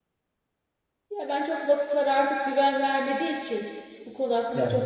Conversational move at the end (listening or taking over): listening